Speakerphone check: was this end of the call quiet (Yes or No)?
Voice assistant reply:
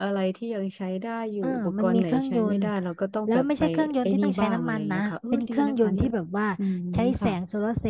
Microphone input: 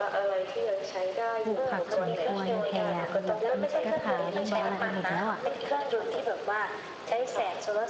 No